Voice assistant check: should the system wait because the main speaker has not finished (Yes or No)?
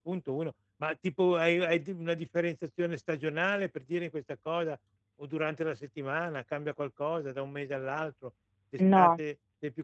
Yes